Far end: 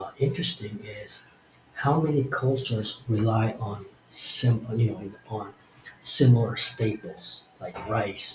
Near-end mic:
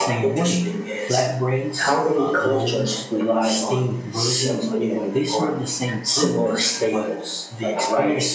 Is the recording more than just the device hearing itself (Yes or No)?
Yes